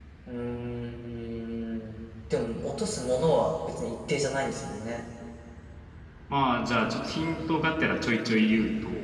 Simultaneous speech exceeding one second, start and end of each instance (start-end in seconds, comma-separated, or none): none